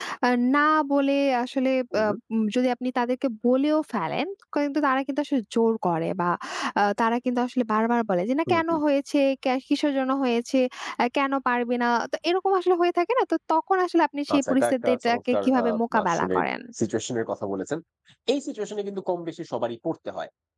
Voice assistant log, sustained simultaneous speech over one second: present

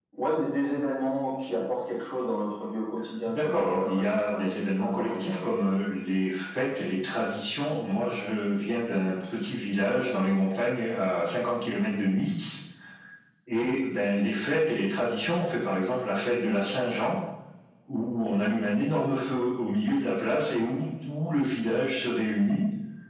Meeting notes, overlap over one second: present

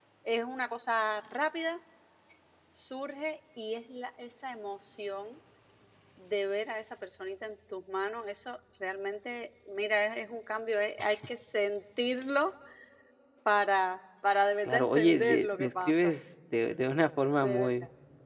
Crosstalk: present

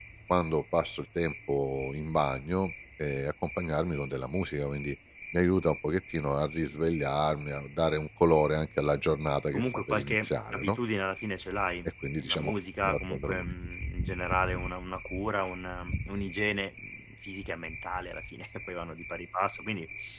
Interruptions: present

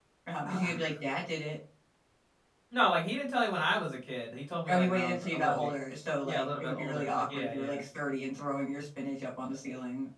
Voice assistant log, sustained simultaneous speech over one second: present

